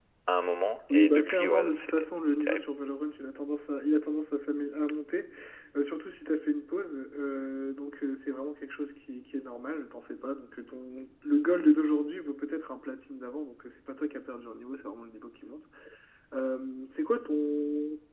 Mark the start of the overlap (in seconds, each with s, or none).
0.9 s